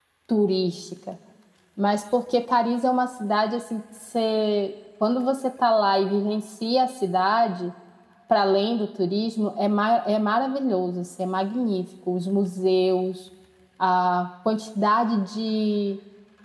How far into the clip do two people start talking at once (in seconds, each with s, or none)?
none